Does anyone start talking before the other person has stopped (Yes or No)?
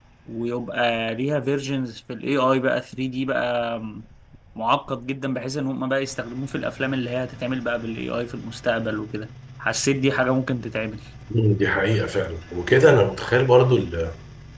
No